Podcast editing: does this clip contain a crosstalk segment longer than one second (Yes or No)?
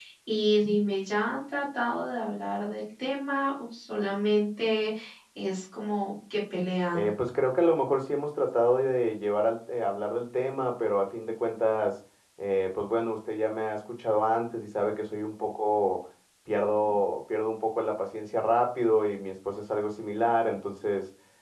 No